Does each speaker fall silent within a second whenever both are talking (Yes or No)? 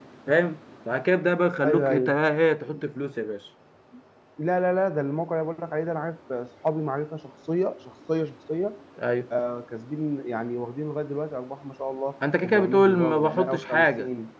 No